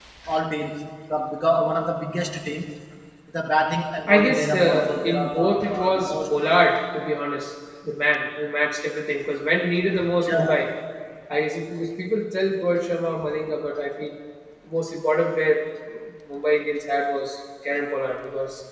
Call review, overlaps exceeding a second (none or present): present